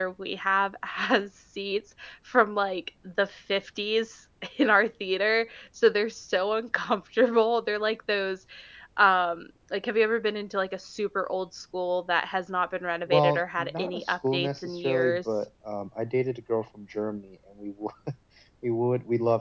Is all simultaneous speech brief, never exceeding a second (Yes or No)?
No